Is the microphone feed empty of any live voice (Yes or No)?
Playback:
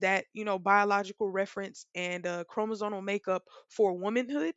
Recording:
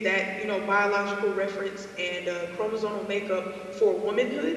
Yes